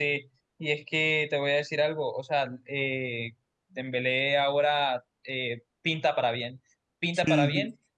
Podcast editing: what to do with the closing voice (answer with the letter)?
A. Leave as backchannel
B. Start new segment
A